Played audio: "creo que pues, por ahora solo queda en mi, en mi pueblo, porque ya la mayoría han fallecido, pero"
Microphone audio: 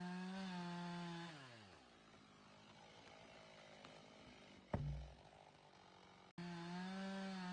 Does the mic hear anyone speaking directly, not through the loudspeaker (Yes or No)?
No